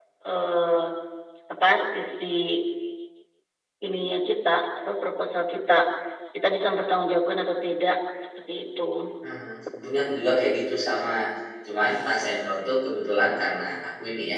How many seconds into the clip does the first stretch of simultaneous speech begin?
none

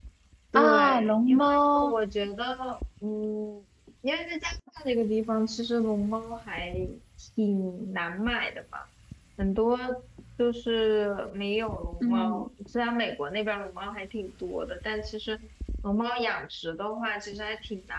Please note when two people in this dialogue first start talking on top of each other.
0.6 s

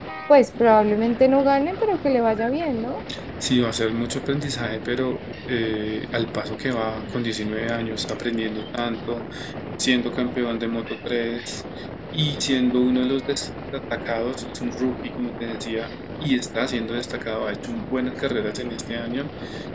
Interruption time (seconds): none

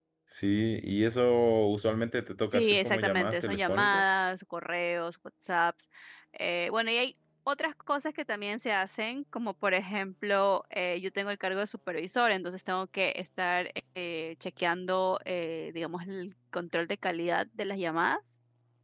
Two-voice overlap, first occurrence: 2.5 s

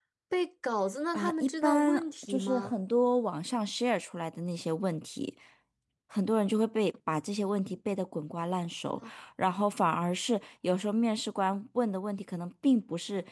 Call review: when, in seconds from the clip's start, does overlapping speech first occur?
1.1 s

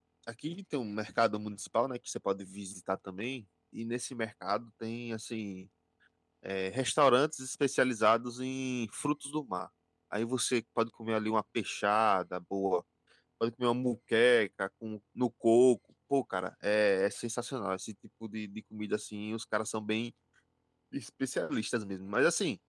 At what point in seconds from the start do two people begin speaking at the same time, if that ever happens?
none

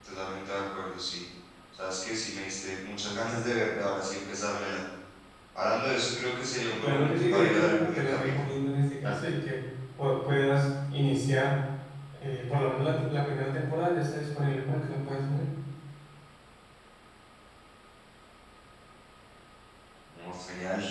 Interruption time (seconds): 6.8 s

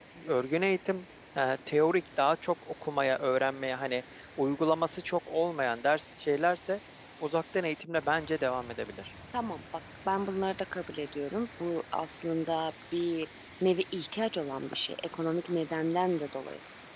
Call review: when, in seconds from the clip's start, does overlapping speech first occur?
none

